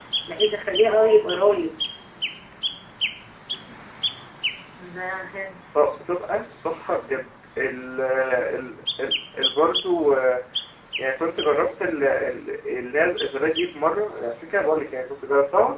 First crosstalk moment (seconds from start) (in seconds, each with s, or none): none